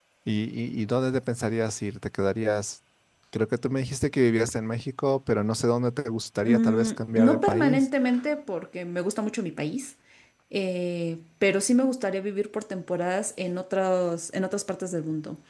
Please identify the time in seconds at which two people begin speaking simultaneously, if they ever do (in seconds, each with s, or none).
6.4 s